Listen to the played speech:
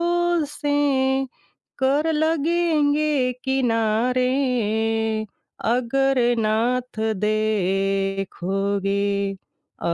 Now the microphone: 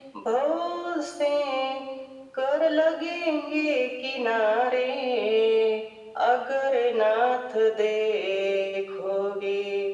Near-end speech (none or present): none